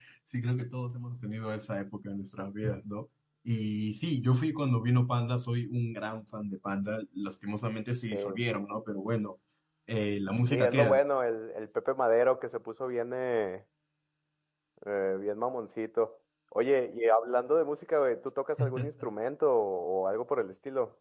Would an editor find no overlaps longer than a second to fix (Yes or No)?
Yes